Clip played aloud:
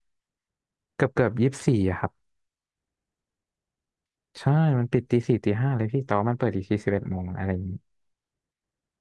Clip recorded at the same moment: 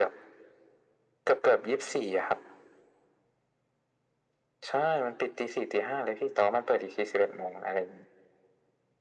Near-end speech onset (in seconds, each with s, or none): none